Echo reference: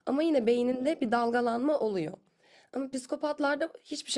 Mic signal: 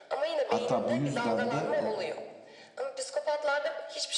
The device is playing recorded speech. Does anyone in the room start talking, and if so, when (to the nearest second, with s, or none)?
0 s